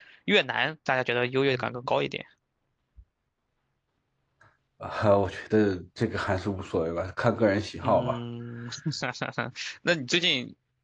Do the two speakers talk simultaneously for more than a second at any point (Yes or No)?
No